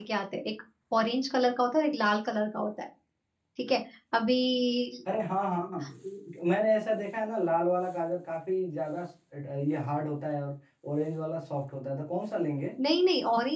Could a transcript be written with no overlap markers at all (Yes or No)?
Yes